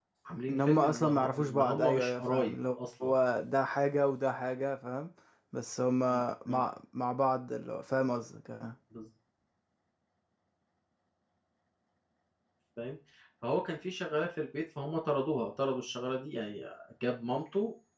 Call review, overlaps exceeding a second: present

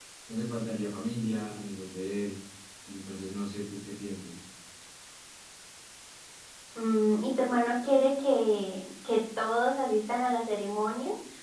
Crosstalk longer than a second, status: none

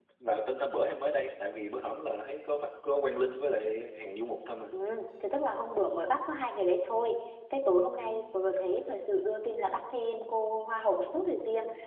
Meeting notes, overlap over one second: none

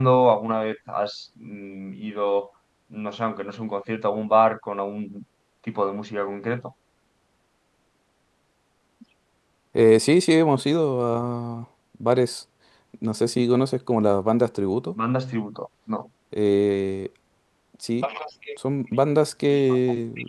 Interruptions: none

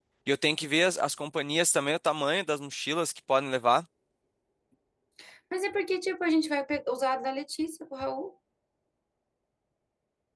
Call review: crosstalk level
none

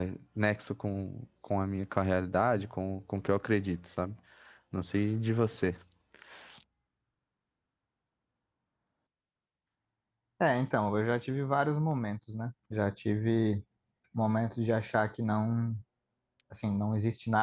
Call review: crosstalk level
none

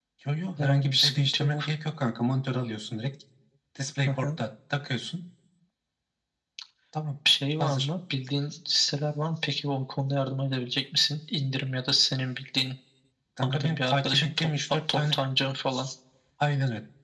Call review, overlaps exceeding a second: present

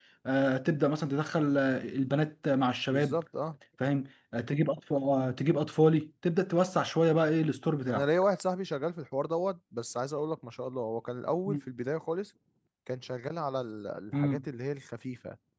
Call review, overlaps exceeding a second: none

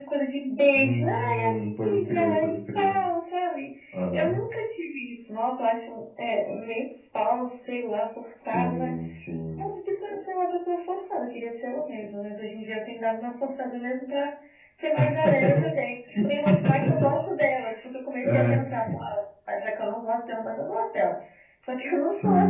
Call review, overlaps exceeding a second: present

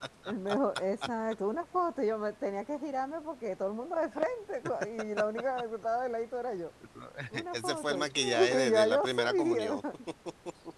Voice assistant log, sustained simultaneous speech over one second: present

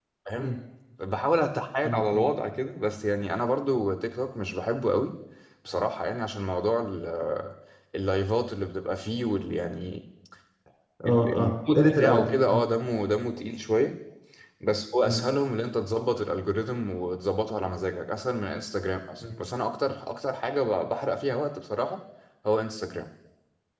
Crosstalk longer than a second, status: present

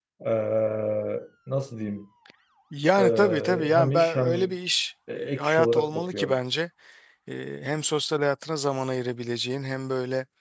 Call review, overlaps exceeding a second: present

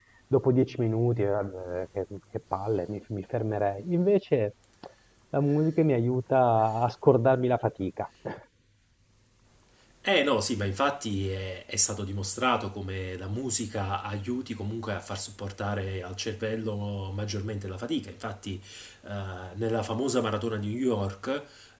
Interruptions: none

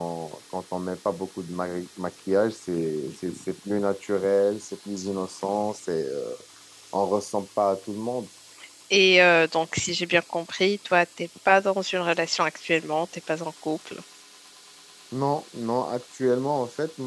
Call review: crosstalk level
none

